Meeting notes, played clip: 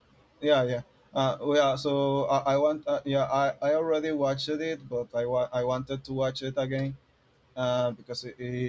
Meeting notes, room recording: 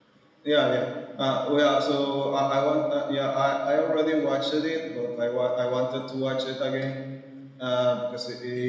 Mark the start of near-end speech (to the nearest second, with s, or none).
none